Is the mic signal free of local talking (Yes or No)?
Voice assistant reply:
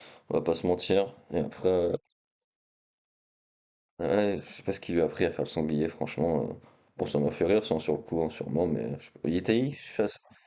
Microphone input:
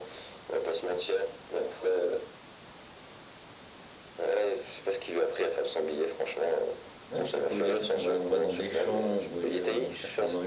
No